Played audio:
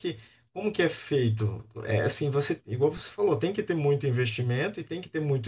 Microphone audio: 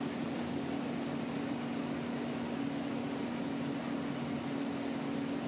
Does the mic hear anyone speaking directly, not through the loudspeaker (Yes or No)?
No